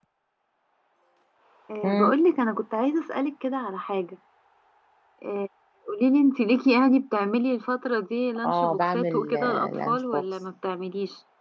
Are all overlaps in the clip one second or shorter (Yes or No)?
No